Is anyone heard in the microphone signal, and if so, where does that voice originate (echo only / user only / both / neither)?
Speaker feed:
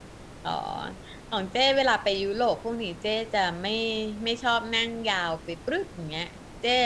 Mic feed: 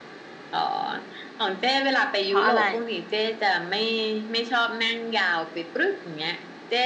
both